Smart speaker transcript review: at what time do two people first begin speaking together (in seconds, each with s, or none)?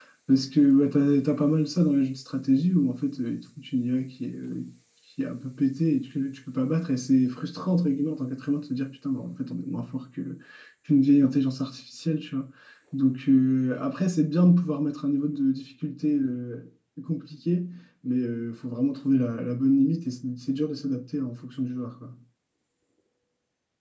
none